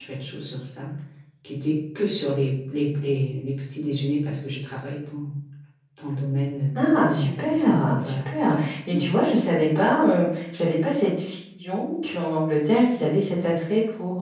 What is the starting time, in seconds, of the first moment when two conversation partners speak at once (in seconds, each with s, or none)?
6.8 s